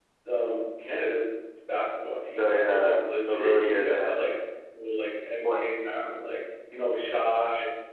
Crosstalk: present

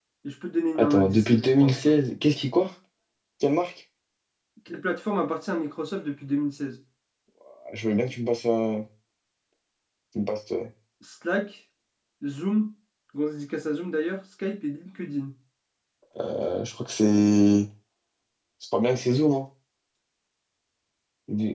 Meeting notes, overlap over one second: present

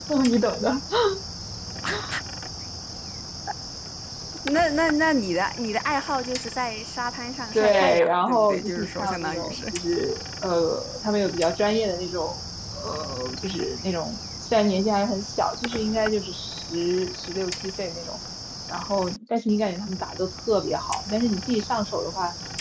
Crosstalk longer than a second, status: present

